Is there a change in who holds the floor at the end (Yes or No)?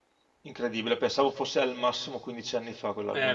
Yes